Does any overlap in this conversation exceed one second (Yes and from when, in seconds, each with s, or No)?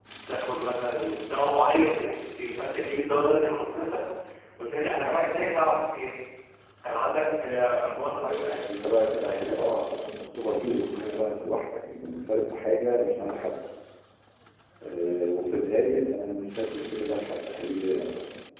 Yes, from 8.5 s